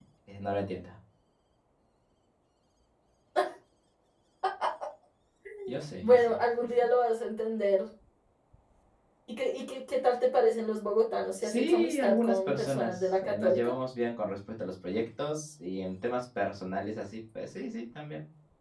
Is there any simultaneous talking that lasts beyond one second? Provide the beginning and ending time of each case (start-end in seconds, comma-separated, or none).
11.4-13.7